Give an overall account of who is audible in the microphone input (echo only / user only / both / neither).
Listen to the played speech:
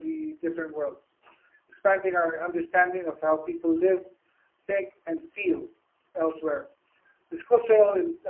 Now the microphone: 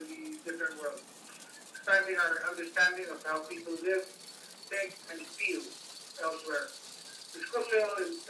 echo only